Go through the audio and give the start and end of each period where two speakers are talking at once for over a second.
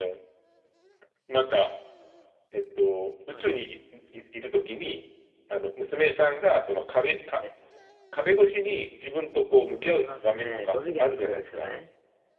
9.8-11.7

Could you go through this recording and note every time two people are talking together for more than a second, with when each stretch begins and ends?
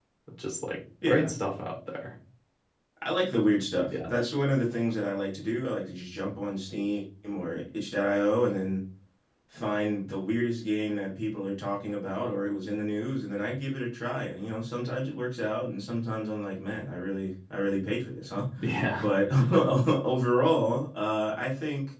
none

